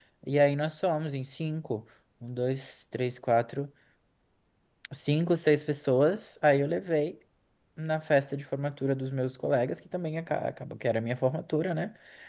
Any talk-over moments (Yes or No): No